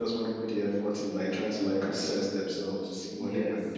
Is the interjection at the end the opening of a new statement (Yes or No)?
Yes